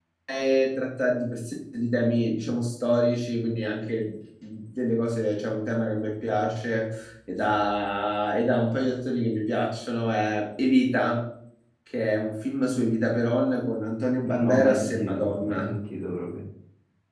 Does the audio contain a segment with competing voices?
Yes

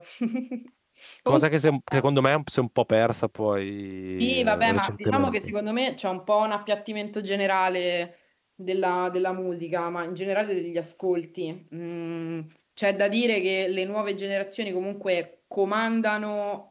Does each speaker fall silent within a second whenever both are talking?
No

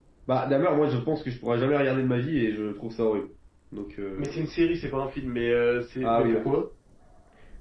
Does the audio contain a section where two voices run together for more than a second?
No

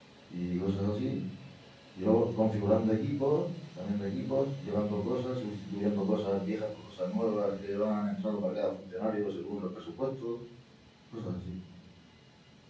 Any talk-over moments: No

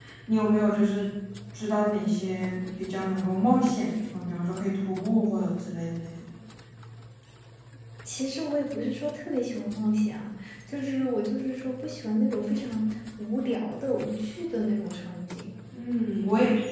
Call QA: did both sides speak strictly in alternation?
Yes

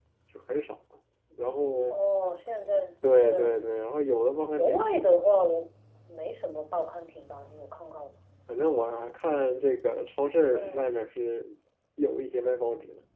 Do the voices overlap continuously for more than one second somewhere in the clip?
No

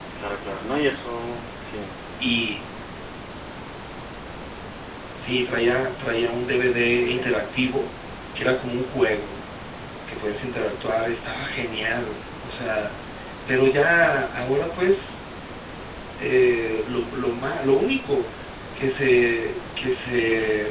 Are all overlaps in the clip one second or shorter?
Yes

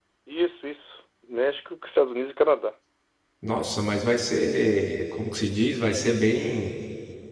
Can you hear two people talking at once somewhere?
No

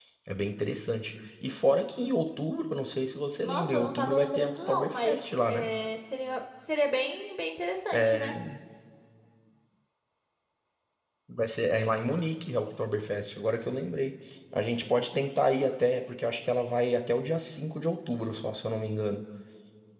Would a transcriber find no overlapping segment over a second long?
No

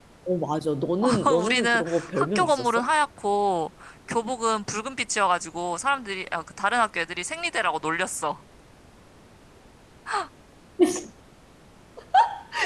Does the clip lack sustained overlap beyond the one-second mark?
No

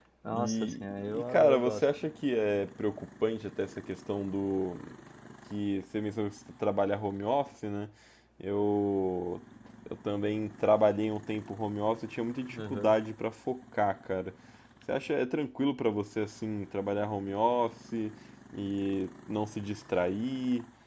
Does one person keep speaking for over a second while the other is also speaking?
Yes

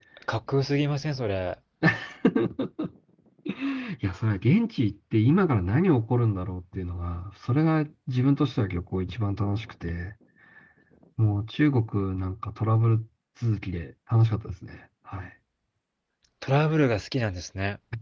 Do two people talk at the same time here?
No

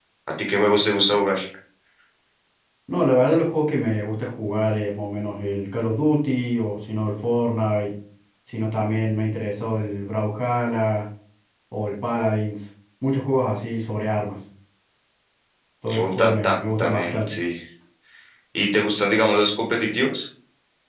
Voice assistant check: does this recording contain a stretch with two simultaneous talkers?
Yes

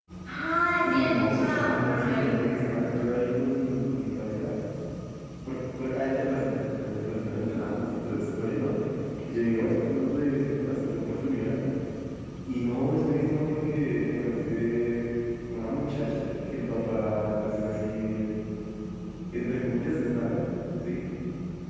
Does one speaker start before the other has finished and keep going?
Yes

